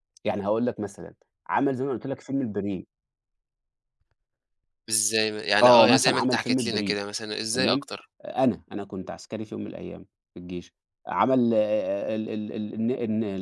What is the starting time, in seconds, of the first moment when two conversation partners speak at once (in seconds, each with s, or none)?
5.6 s